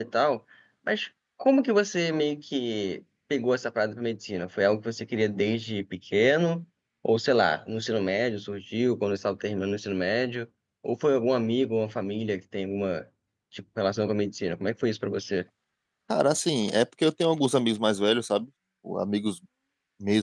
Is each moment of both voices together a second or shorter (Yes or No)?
Yes